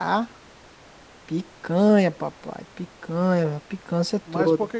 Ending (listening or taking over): taking over